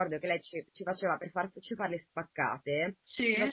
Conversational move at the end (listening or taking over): listening